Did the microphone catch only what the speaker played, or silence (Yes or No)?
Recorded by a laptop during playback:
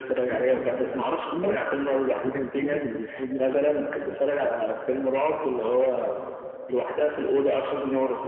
No